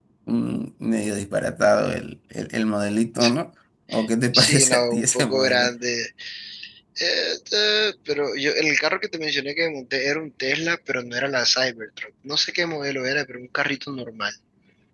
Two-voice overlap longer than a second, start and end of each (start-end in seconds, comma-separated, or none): 4.3-5.7